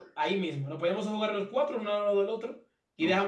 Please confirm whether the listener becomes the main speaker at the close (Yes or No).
No